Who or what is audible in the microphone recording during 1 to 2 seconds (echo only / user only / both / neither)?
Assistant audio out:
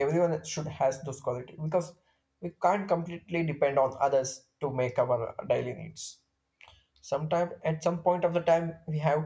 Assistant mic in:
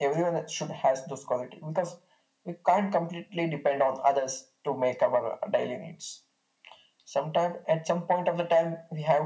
echo only